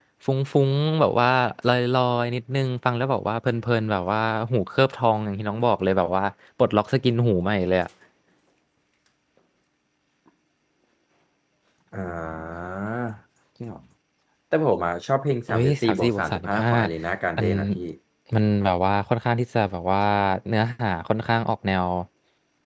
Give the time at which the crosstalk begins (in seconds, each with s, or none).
15.5 s